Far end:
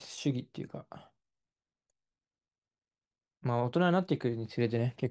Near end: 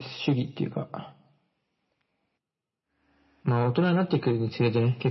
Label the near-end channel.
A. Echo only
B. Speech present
A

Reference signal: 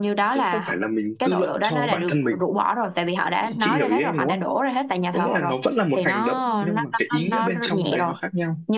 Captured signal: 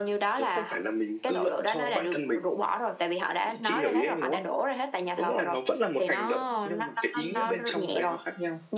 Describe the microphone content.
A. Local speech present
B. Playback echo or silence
B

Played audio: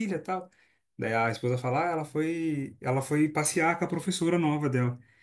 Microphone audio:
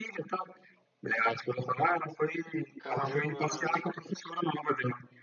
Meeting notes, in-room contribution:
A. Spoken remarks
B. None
A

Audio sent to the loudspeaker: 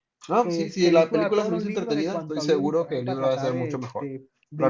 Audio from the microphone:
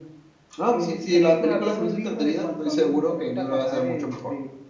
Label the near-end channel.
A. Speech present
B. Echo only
B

